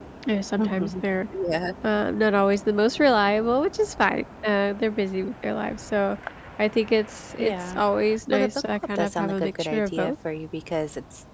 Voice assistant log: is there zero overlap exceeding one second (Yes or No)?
No